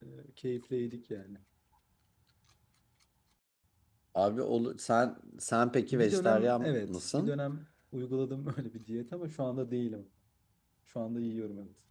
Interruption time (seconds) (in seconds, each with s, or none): 5.9 s